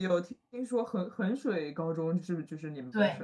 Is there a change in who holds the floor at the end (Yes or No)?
Yes